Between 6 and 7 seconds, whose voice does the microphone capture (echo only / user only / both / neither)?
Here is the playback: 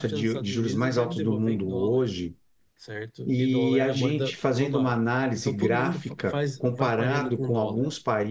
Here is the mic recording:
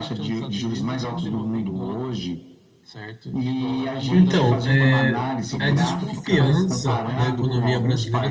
both